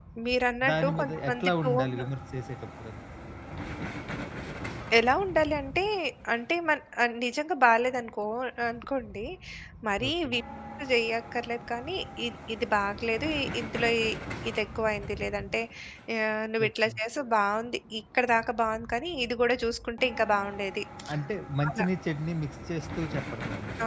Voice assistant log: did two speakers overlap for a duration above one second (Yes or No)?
Yes